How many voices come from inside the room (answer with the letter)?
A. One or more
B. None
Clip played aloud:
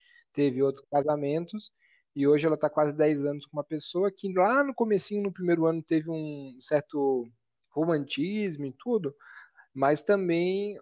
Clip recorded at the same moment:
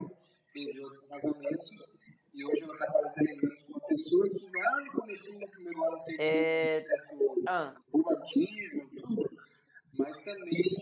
A